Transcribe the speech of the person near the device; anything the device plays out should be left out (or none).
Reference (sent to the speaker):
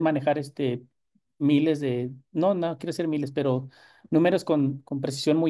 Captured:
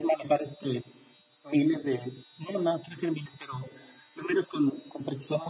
none